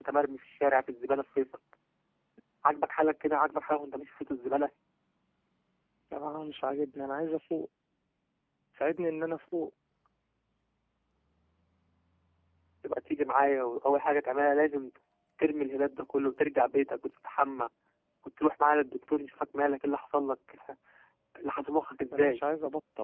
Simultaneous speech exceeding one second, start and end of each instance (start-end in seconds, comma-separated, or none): none